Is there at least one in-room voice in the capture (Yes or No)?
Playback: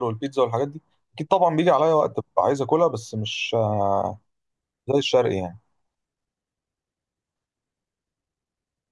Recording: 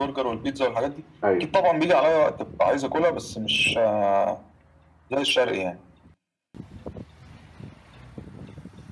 Yes